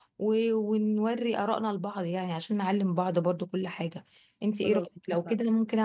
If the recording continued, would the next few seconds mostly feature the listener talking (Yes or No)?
No